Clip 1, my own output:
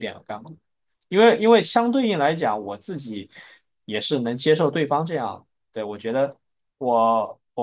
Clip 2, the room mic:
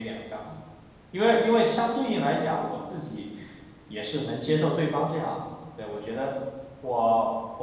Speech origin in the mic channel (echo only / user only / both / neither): echo only